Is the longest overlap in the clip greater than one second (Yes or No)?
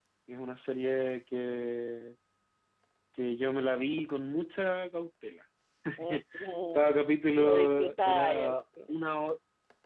Yes